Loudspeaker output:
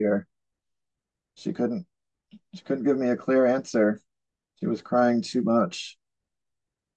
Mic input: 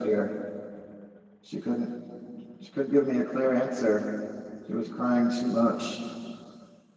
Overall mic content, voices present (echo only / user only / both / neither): echo only